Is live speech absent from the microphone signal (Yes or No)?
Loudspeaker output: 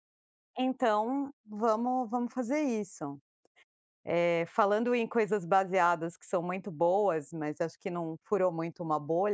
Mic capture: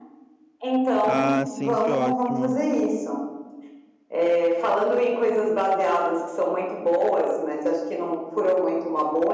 No